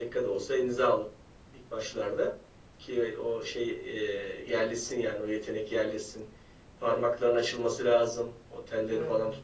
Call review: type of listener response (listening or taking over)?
listening